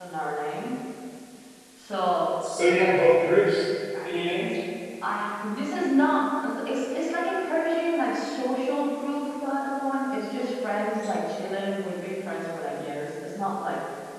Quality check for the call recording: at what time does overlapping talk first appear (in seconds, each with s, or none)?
none